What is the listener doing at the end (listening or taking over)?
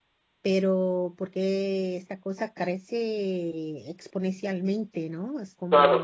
taking over